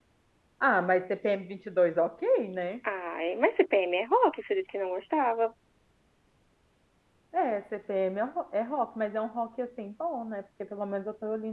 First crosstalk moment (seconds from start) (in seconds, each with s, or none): none